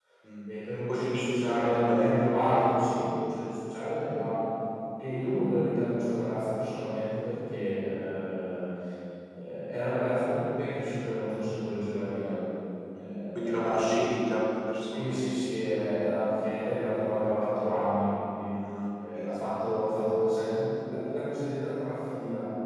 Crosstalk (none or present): present